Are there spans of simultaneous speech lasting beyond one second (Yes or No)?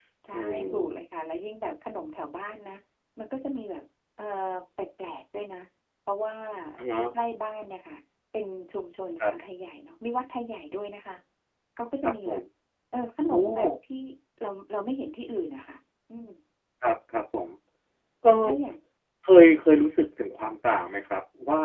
No